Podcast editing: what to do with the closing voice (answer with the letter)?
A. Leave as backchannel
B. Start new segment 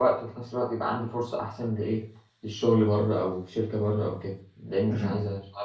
B